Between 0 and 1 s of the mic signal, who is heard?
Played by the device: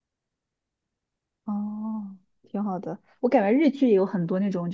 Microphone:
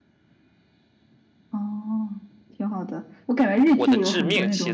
neither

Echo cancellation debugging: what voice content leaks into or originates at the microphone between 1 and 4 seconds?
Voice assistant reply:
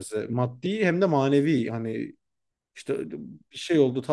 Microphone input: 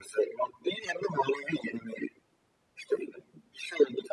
echo only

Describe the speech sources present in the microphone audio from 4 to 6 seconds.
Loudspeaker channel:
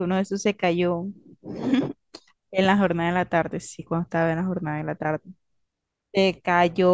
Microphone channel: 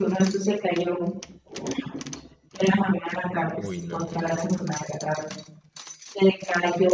both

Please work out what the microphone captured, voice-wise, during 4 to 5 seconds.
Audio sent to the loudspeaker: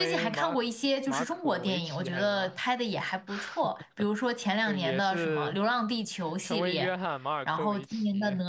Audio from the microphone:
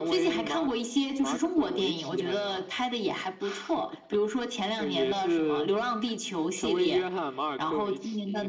echo only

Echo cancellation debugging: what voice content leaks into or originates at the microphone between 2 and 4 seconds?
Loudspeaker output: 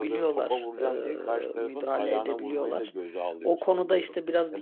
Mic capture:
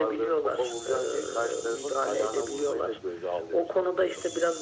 echo only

